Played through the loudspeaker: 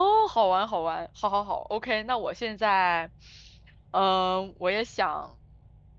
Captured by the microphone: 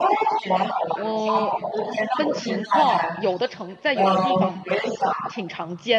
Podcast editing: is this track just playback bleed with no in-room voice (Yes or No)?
No